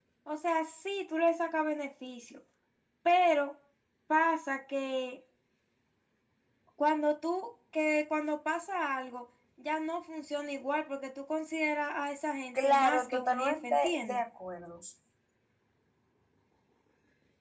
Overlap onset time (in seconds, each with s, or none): 12.5 s